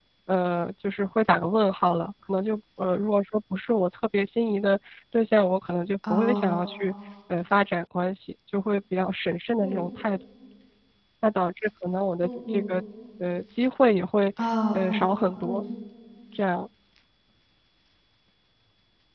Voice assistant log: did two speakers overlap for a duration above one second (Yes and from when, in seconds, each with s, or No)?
No